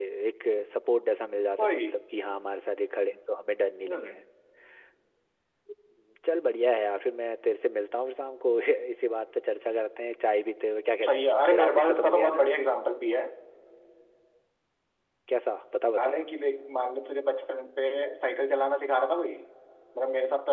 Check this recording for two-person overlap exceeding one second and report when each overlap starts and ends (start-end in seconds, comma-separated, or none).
11.1-12.5